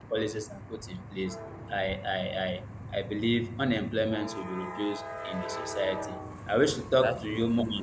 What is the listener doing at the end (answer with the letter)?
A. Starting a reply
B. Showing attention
B